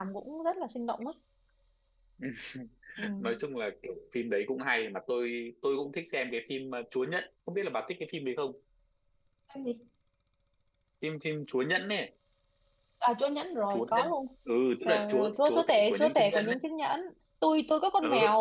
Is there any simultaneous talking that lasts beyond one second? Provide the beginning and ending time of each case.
14.8-16.6

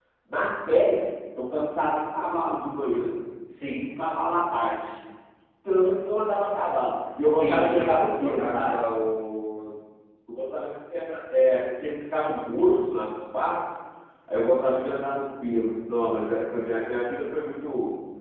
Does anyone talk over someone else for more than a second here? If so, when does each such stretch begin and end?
7.3-8.8

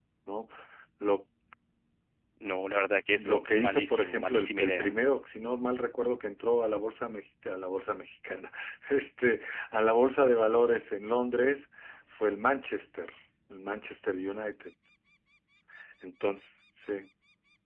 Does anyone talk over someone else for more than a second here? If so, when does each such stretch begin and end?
3.1-4.9

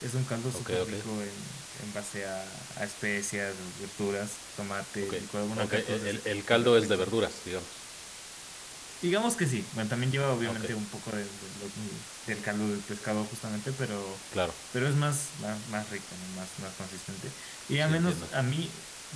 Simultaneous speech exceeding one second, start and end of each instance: 5.6-7.1

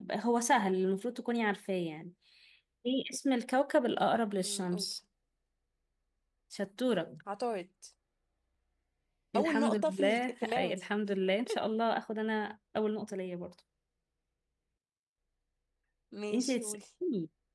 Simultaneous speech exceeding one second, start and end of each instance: 9.4-10.8

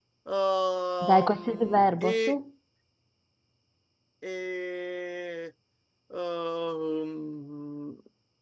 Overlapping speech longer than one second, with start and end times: 1.0-2.3

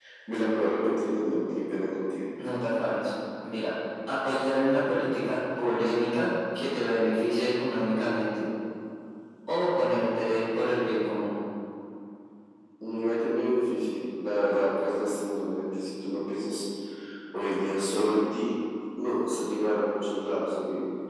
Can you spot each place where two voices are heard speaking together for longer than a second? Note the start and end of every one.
none

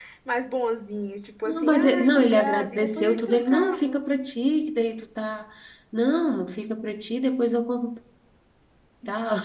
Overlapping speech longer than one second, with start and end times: 1.4-4.0

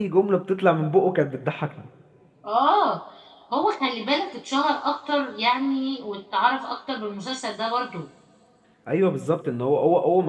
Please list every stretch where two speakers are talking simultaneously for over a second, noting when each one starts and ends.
none

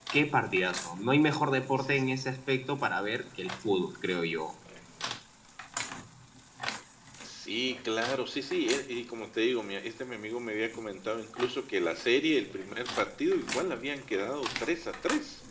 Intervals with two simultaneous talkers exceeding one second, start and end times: none

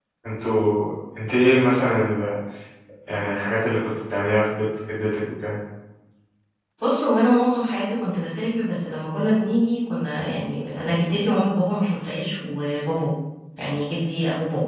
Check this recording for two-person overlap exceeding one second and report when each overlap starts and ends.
none

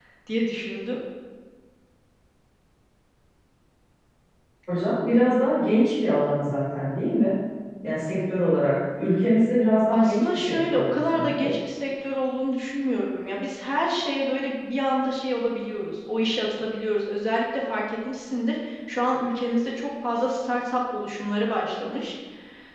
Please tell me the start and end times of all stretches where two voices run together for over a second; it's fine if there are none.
9.9-11.5

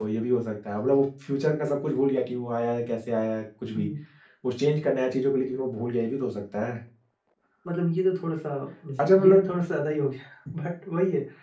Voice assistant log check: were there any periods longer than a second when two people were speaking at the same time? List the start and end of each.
none

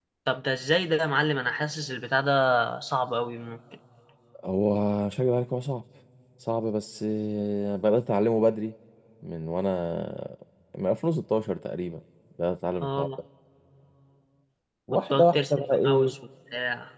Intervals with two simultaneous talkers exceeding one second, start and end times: 14.9-16.1

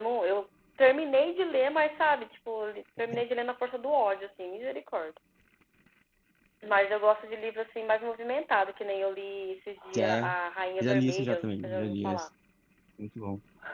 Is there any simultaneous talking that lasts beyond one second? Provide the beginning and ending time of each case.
10.8-12.2

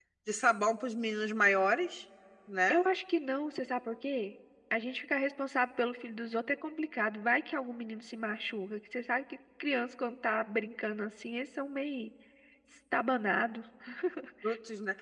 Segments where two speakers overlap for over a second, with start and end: none

